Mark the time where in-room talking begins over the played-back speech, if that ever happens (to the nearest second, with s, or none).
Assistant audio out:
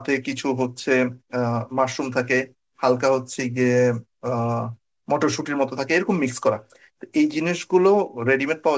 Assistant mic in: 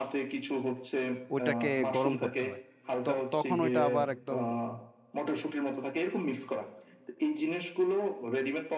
1 s